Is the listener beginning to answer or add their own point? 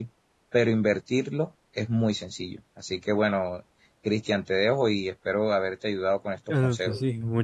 Yes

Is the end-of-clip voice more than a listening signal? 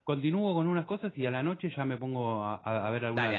Yes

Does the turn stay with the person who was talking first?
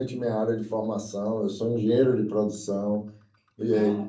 Yes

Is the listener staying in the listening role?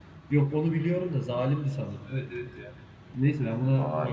Yes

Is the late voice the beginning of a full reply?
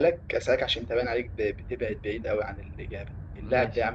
No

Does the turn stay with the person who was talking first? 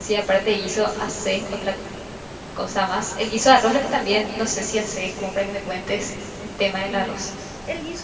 No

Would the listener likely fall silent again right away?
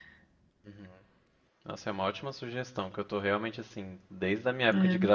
Yes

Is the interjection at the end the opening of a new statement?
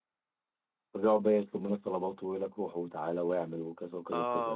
Yes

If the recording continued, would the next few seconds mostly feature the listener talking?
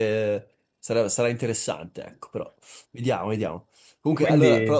No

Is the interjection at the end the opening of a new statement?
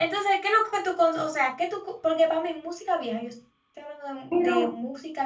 No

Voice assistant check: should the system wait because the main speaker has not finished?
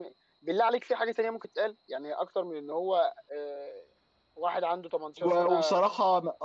No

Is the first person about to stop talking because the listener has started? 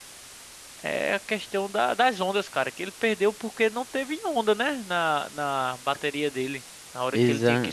No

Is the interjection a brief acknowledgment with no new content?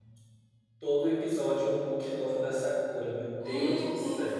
No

